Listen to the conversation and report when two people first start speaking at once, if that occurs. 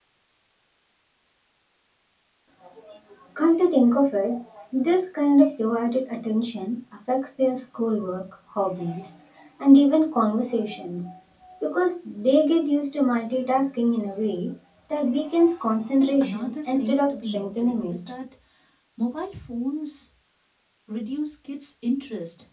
16 s

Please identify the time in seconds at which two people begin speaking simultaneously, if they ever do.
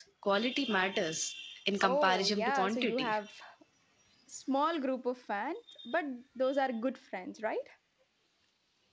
2 s

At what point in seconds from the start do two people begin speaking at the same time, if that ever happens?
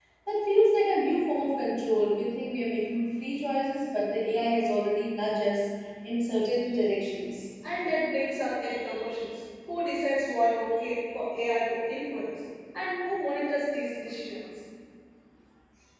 none

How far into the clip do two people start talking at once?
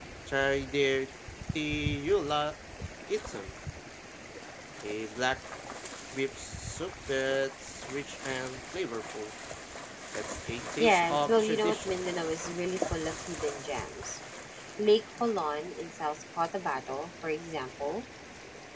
11 s

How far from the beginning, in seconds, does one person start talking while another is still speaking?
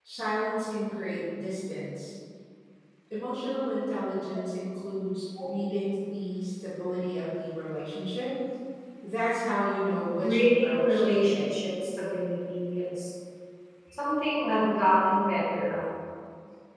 10 s

